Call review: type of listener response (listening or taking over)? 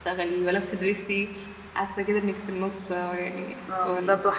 taking over